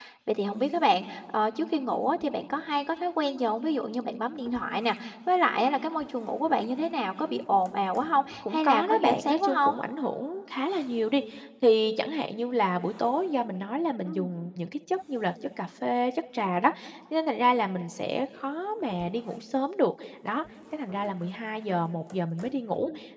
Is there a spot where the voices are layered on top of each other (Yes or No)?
Yes